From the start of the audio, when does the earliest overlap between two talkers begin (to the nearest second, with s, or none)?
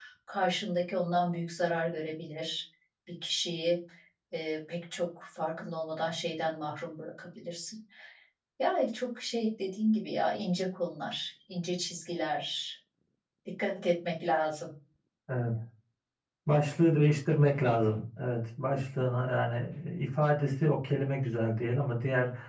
none